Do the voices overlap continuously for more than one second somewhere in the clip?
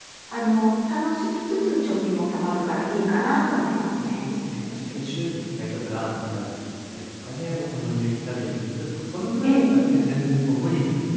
No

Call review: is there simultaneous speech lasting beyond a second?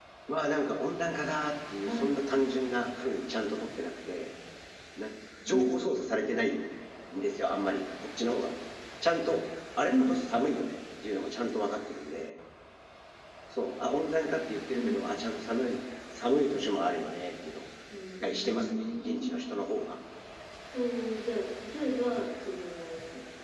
Yes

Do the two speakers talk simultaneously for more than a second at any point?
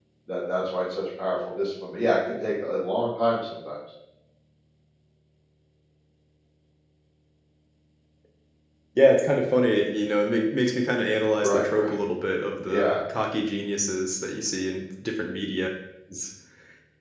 No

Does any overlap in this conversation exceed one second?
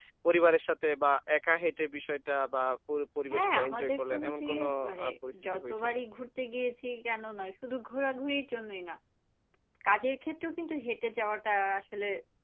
Yes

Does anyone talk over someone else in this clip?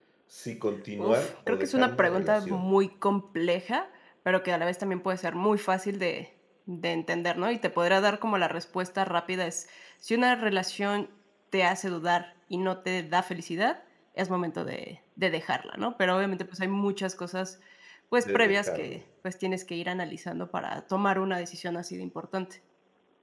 Yes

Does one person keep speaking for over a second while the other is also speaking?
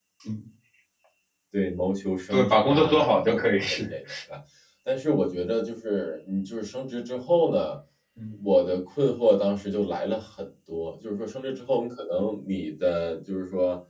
Yes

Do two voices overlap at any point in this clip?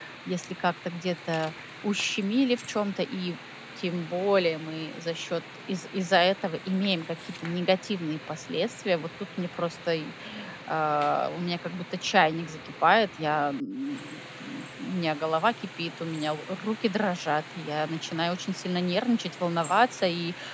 No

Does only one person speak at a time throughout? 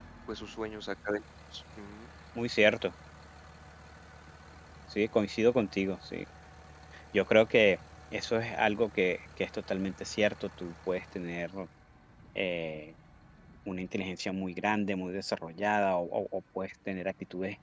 Yes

